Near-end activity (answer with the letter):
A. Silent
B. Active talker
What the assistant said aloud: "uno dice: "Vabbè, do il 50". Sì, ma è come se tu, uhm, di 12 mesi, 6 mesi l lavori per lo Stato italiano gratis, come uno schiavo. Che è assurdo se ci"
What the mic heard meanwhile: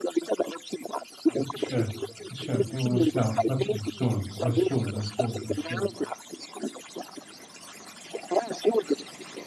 B